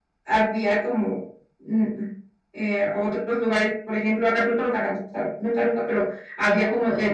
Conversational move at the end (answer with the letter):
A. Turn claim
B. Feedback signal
B